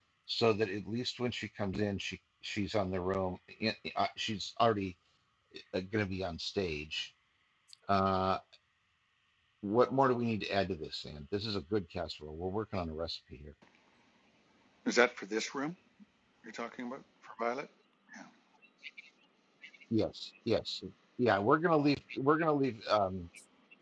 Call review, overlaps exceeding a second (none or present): none